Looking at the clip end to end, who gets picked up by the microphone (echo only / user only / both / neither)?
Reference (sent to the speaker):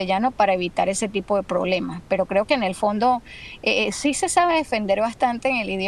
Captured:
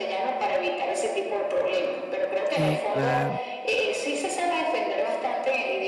both